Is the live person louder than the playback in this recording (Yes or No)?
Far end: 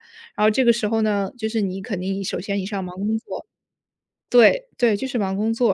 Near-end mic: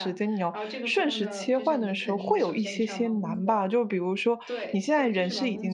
Yes